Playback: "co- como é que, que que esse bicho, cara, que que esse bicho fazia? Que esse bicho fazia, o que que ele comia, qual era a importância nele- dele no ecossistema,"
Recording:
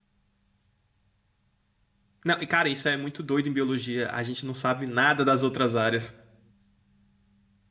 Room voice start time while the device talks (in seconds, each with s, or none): 2.2 s